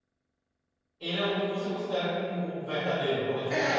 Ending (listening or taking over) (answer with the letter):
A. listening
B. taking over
B